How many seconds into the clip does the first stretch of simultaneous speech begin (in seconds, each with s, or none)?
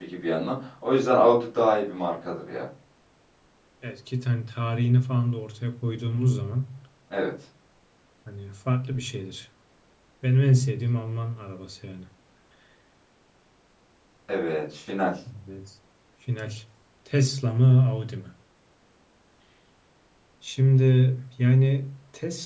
none